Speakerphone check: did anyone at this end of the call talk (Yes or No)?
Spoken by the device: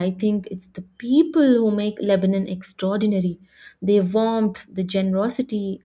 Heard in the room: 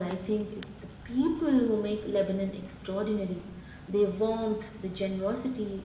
No